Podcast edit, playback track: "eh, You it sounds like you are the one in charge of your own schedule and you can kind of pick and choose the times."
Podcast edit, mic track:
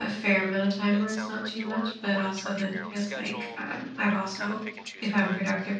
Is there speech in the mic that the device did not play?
Yes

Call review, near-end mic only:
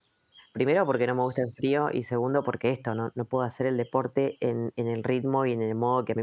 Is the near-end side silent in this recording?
No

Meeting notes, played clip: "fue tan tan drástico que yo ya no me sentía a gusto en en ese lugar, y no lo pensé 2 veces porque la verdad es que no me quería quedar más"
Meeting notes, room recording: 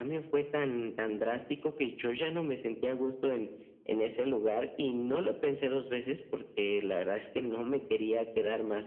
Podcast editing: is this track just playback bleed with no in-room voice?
Yes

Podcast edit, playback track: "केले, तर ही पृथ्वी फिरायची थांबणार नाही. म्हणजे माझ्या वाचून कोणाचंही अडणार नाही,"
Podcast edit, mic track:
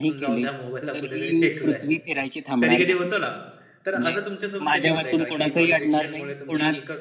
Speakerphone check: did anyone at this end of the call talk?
Yes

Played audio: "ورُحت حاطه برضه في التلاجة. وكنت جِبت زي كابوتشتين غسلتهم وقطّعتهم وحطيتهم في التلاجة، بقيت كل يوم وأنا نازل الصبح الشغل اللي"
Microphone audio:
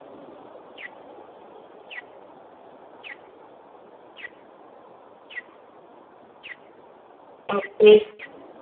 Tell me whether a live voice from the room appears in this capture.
Yes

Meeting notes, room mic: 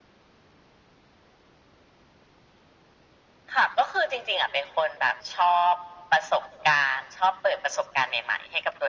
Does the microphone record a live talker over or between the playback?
No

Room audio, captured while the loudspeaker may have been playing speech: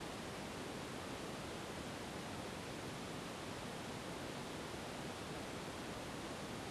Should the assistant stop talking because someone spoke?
No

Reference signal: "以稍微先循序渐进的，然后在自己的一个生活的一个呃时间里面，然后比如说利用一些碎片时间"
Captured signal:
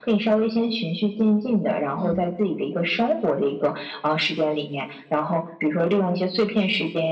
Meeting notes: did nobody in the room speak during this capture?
No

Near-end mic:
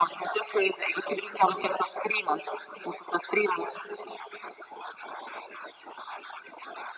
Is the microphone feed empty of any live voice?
Yes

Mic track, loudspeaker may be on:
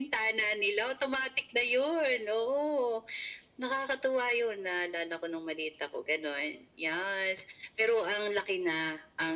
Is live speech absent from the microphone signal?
Yes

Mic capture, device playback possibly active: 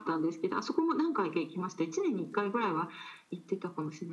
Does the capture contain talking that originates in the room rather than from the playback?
No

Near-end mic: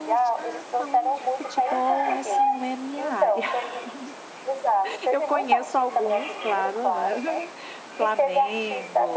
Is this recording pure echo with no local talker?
No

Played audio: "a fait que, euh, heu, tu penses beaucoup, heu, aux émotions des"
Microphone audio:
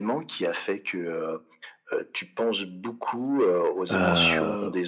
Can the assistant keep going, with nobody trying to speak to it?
No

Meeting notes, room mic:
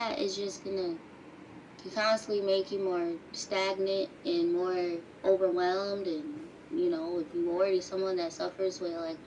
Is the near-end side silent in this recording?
Yes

